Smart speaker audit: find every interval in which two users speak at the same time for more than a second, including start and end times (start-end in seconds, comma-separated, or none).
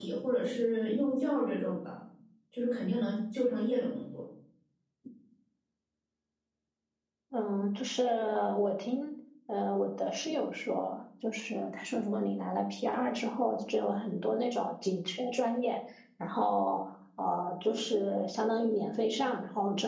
none